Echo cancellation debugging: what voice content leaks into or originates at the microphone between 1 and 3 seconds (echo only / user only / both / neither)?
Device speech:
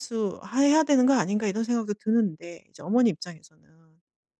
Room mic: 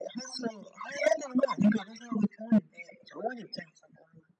echo only